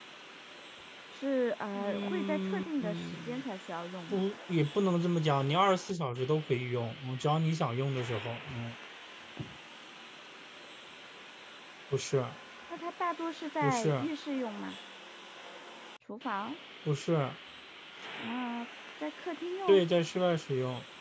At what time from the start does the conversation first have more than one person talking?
1.8 s

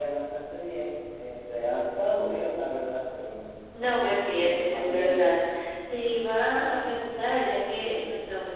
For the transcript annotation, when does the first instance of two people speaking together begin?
4.0 s

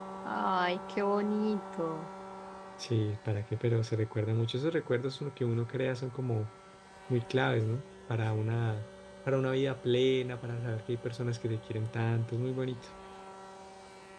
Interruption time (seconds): none

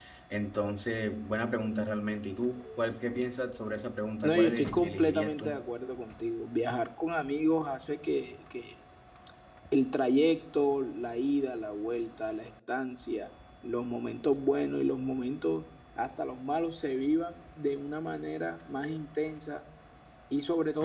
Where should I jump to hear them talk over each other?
4.2 s

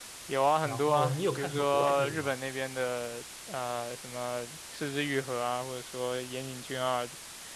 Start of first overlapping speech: 0.7 s

